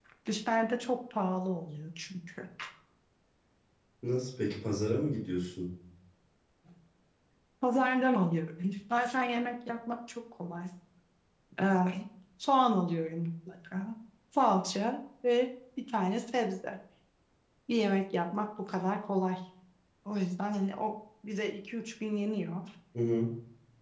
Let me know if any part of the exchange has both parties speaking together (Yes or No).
No